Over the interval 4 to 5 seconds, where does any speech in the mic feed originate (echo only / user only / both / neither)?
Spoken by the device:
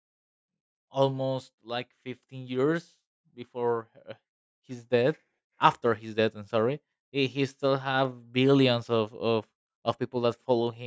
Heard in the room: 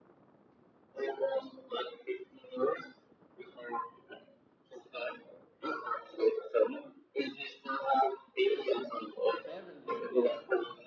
echo only